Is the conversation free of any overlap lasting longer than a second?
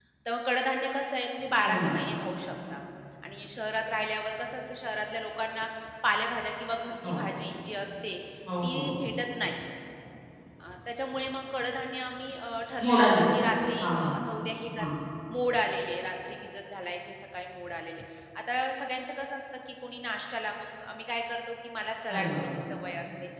Yes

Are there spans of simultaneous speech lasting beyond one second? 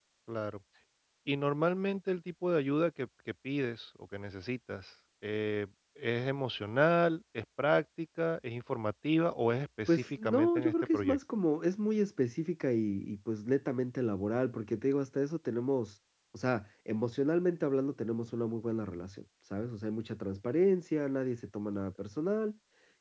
Yes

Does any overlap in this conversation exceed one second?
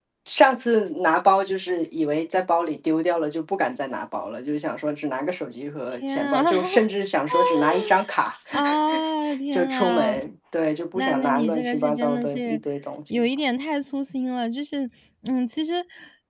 Yes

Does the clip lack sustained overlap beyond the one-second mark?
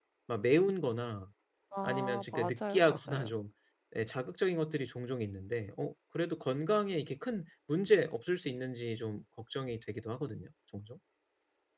No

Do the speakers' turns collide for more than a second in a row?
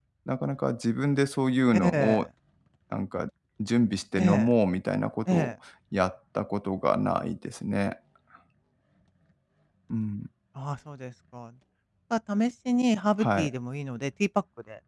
No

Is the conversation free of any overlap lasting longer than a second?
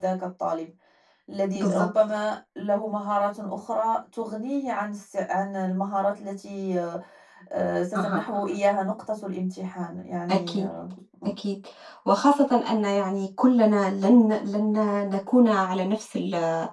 Yes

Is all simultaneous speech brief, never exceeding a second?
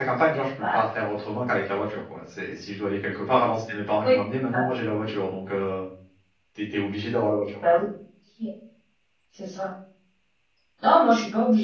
Yes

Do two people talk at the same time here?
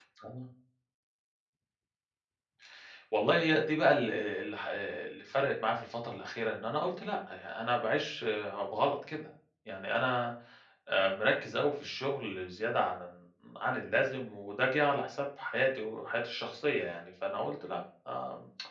No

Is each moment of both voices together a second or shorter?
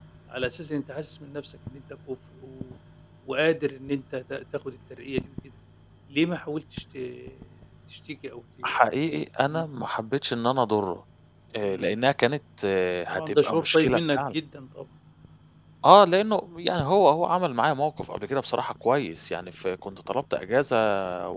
No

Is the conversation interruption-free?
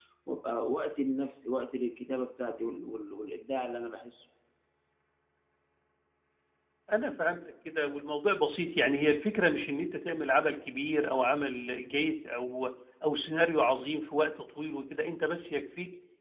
Yes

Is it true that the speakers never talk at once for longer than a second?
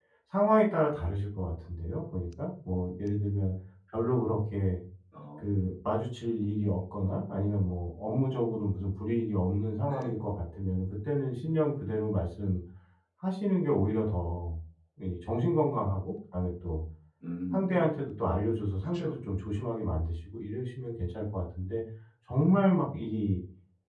Yes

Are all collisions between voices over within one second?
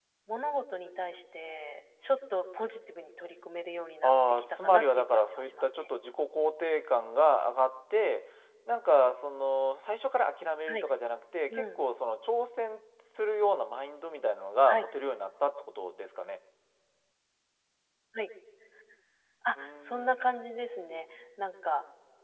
No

